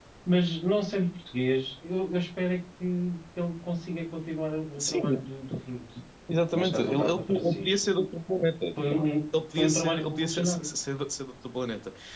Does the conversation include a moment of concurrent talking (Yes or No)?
Yes